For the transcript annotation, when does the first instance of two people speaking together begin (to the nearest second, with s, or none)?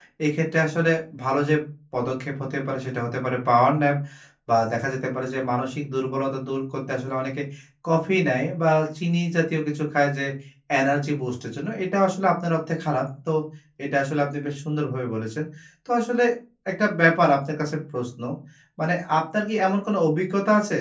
none